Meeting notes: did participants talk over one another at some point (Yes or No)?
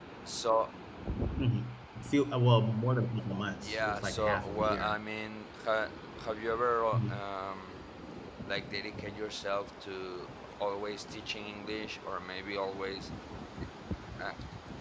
Yes